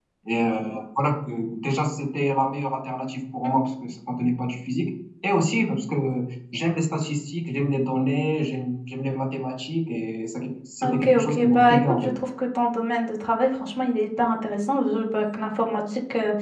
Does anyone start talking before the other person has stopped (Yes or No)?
Yes